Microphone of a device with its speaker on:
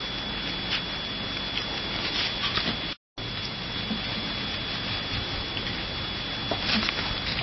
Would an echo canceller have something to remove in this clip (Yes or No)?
No